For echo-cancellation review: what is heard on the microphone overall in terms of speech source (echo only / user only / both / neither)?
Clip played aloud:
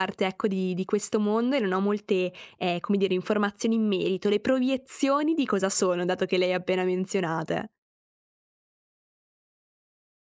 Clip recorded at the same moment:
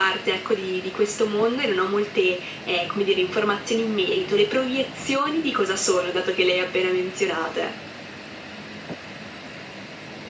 echo only